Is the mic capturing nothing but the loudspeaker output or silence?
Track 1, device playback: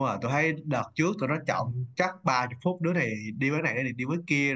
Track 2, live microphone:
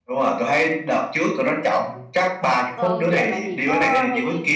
No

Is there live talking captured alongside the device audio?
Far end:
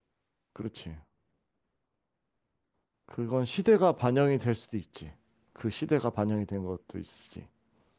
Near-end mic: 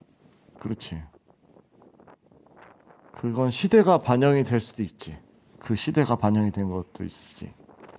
No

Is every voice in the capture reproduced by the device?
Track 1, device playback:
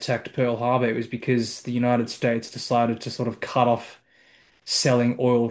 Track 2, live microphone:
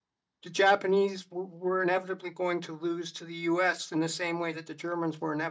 No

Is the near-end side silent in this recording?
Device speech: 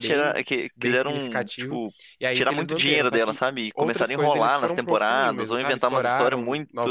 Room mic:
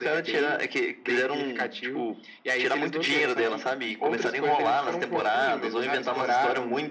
Yes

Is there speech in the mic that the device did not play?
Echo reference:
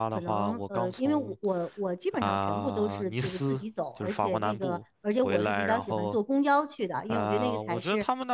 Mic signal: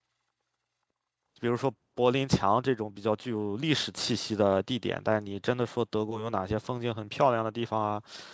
Yes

